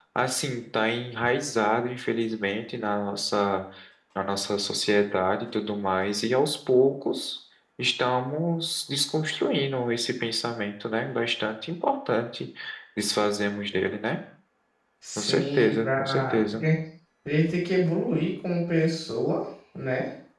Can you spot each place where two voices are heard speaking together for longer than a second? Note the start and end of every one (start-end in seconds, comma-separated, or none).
15.2-16.6